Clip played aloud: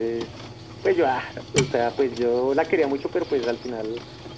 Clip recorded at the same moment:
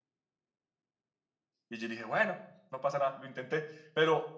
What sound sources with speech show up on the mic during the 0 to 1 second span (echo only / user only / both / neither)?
neither